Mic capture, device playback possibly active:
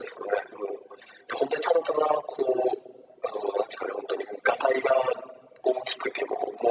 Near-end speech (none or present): none